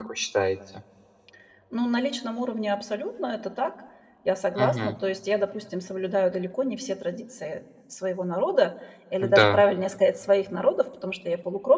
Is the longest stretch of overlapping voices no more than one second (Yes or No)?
Yes